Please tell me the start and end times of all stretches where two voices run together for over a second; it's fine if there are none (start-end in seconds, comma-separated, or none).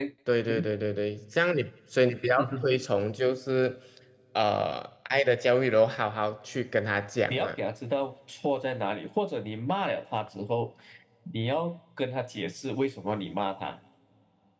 none